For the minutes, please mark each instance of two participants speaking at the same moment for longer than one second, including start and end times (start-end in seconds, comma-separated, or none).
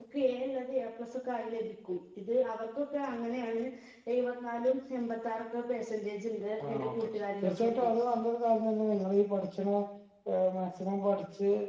6.7-7.9